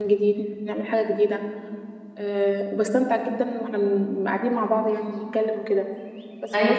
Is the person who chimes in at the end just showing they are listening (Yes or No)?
Yes